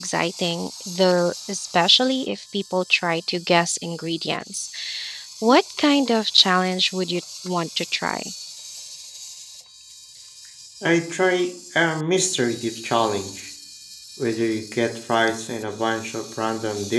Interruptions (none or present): none